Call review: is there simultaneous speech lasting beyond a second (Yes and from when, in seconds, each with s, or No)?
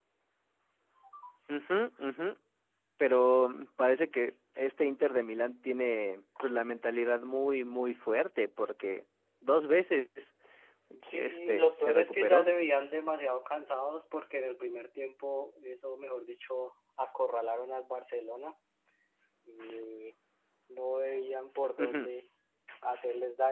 Yes, from 11.1 s